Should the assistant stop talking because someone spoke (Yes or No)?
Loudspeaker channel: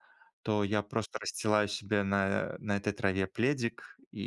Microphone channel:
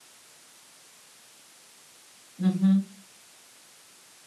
Yes